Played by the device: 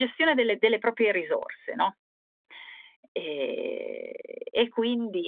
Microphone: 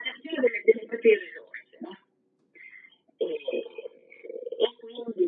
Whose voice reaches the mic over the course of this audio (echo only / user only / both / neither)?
echo only